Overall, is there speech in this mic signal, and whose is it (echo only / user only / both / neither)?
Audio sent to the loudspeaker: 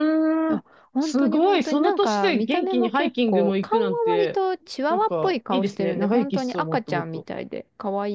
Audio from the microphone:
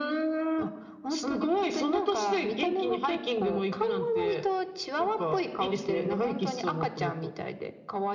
echo only